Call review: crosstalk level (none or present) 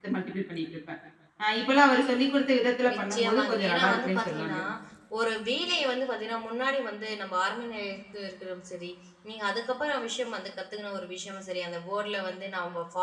present